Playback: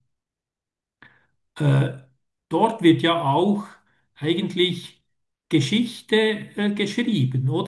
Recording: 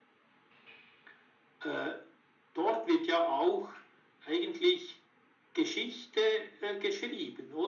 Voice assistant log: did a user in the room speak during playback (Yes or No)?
No